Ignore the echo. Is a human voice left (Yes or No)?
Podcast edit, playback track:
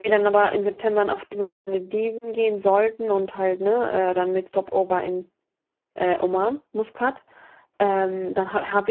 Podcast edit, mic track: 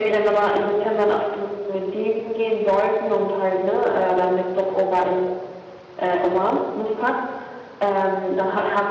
No